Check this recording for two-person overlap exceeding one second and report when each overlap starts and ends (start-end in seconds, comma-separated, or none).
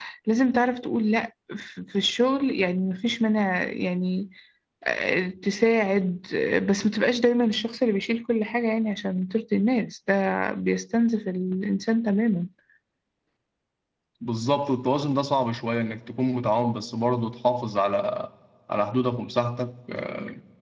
none